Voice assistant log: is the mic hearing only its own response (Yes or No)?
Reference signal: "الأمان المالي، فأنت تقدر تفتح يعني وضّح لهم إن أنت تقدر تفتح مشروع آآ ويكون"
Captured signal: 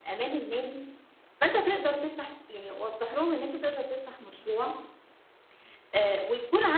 Yes